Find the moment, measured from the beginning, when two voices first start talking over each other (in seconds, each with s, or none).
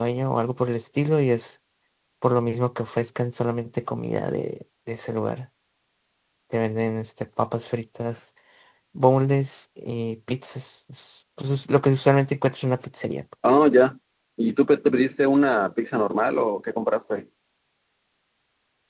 none